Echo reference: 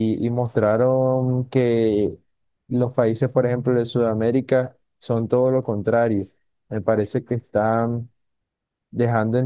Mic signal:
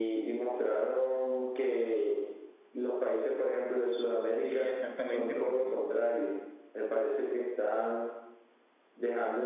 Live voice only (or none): Sí, exactamente, porque